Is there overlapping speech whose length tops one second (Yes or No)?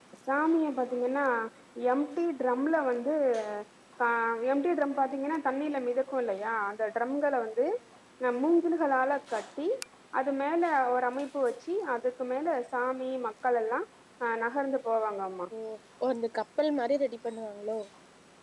No